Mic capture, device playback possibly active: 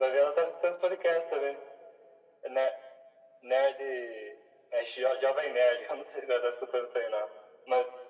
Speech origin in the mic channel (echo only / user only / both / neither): echo only